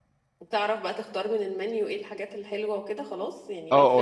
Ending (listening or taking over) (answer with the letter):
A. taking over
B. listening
A